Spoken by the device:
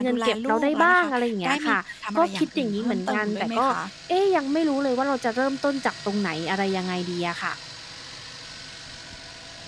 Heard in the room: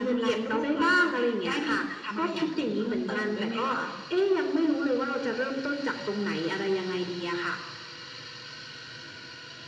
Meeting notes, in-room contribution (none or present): none